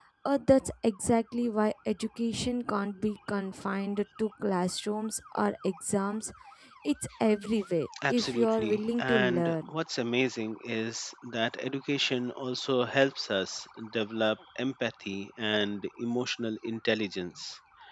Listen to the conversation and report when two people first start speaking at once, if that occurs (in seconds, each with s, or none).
7.9 s